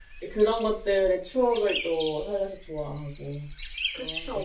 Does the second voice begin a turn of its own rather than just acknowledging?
Yes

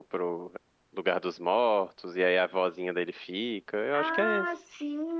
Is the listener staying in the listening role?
No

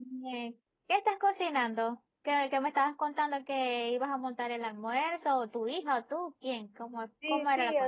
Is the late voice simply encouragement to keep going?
No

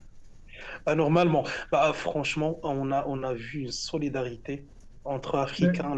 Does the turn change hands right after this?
No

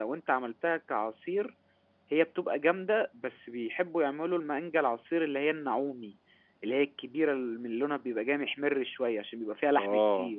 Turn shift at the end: Yes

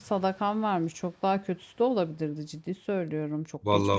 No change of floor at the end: No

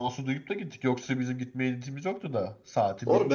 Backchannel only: No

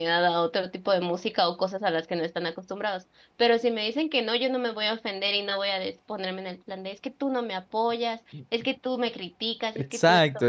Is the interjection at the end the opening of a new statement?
Yes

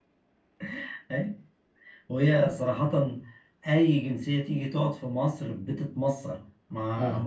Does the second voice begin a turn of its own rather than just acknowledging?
No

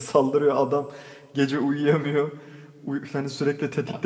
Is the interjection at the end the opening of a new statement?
No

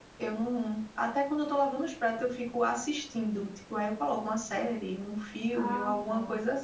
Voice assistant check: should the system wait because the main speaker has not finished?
Yes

